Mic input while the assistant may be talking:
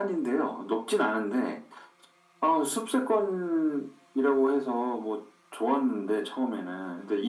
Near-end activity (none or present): none